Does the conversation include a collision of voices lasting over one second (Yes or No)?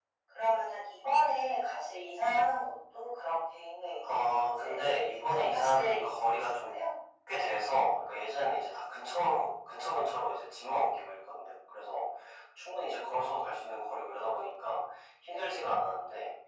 Yes